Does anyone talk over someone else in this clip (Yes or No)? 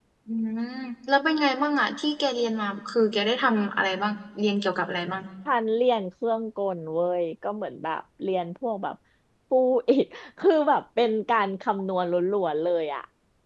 No